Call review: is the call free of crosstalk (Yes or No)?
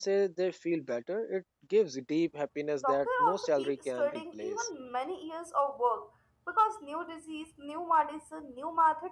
No